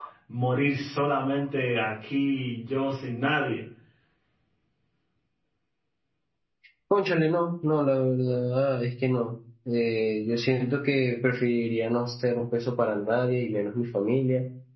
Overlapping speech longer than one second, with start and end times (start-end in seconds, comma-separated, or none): none